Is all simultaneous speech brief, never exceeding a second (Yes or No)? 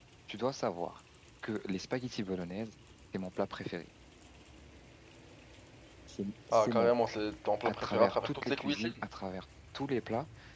No